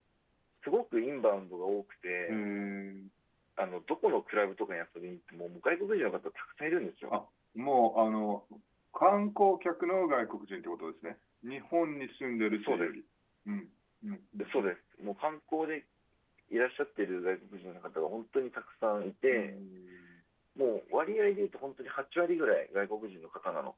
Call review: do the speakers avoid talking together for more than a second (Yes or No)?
Yes